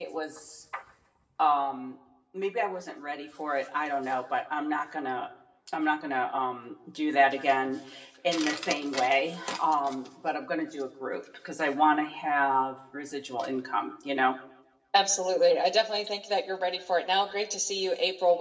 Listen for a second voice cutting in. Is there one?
No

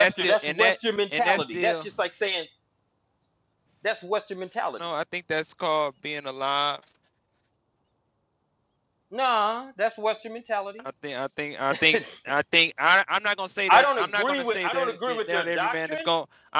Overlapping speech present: Yes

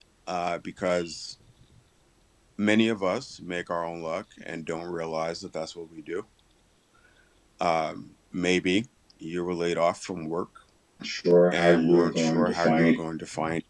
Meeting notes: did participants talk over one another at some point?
Yes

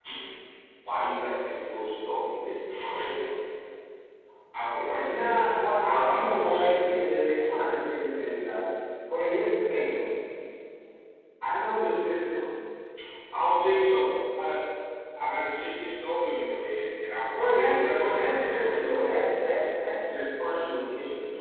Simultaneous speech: Yes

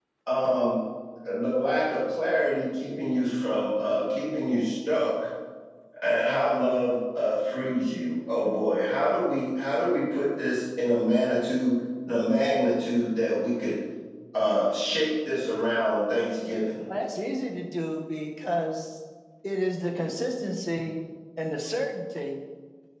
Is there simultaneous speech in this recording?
No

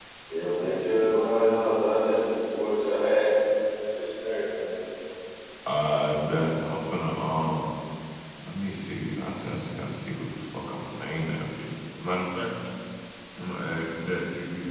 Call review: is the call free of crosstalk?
Yes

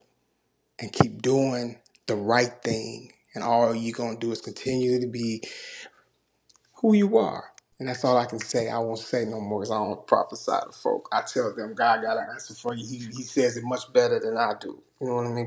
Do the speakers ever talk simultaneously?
No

